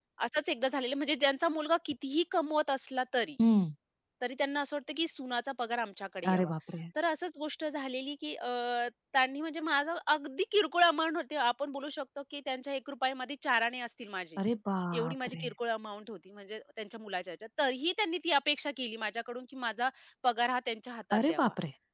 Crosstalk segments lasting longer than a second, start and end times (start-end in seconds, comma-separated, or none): none